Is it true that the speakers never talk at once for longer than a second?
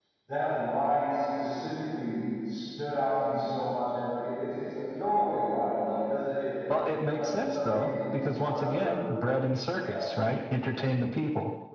No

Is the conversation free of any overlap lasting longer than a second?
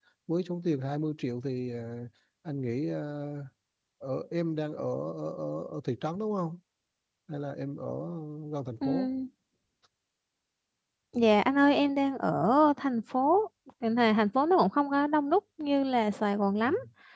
Yes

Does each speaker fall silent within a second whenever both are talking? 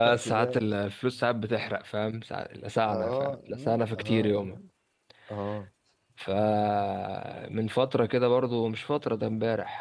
No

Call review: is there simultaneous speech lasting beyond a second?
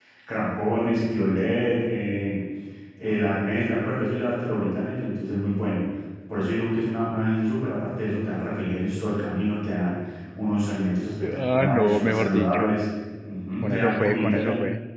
Yes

